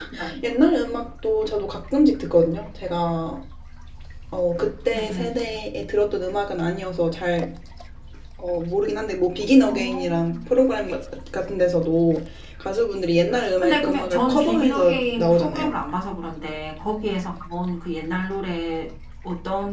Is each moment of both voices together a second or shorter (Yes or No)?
No